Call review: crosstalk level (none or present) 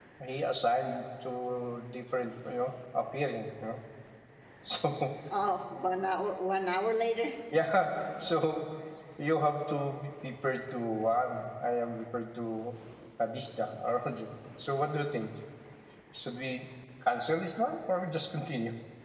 none